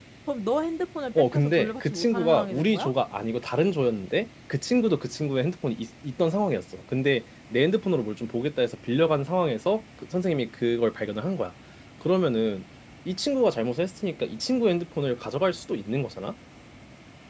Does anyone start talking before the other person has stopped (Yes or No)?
Yes